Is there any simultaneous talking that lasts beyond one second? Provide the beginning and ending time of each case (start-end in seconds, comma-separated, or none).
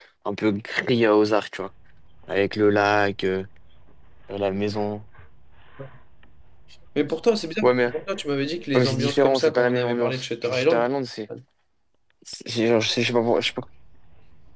8.8-10.9